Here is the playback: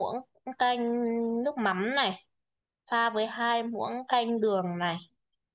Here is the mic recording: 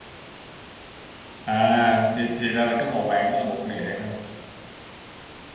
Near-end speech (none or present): present